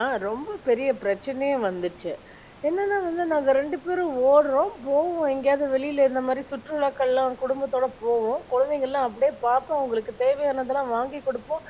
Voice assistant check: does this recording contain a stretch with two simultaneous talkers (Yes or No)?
No